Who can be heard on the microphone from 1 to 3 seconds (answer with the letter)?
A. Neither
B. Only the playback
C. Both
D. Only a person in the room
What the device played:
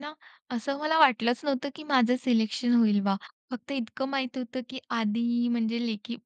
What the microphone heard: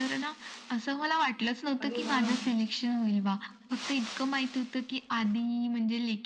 C